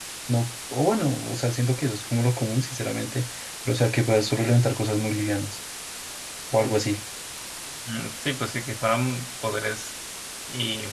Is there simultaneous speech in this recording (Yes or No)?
No